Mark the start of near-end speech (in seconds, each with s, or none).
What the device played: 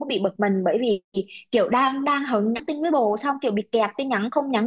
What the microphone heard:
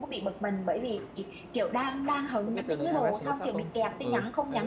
2.5 s